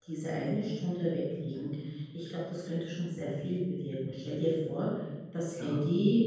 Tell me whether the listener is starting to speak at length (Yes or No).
No